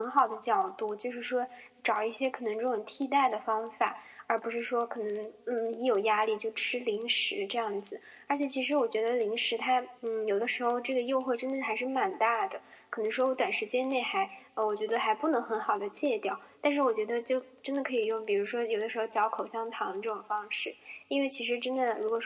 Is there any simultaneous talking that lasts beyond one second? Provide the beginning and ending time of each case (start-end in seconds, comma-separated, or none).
none